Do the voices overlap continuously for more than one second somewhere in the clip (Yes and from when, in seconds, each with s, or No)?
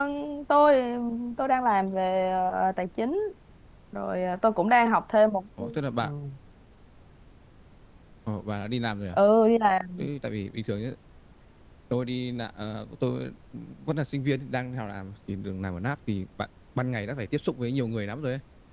No